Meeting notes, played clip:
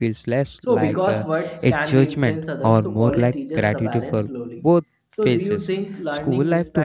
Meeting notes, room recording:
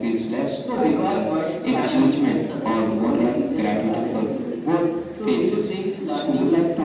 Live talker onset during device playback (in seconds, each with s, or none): none